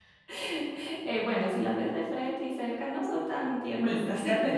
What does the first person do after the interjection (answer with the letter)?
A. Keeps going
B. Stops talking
B